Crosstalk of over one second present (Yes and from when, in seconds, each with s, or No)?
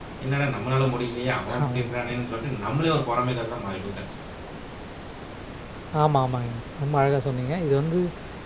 No